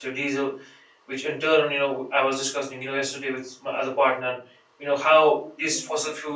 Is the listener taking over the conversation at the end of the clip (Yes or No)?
No